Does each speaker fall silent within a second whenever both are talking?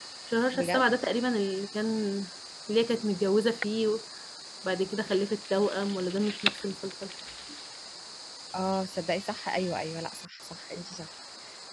Yes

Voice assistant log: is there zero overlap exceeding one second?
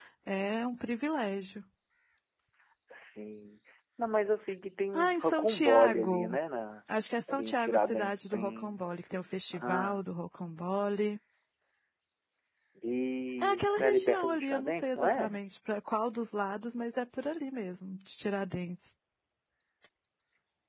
No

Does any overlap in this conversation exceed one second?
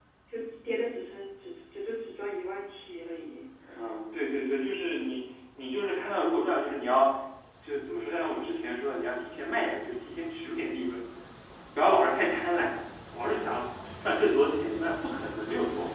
No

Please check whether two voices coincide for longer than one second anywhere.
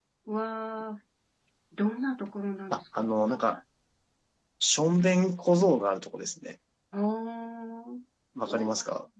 No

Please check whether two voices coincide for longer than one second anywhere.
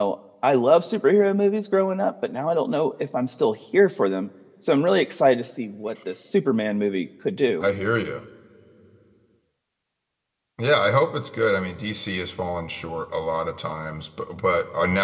No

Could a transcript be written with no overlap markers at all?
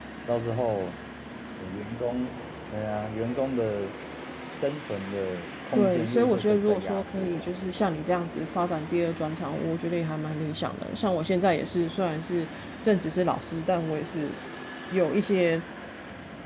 No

